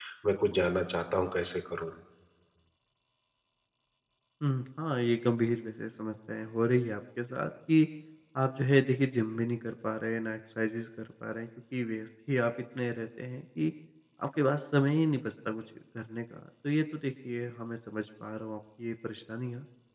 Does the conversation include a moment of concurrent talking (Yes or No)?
No